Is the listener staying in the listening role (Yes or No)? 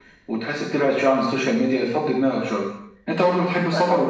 Yes